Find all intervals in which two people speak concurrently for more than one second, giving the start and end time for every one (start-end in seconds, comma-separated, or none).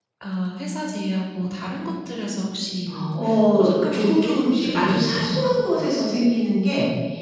3.1-5.4